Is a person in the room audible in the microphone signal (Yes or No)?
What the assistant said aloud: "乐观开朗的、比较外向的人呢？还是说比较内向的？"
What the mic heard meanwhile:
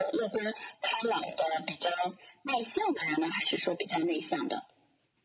No